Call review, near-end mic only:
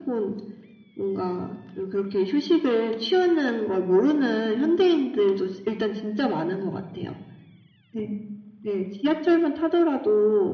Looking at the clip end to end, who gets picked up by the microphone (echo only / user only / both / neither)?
echo only